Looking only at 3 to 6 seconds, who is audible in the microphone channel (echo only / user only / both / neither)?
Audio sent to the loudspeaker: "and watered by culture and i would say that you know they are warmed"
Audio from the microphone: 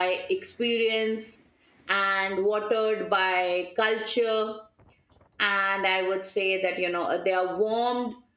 echo only